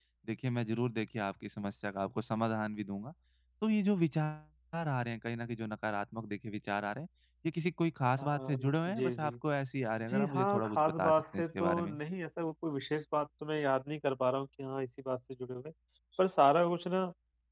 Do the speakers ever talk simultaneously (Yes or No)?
Yes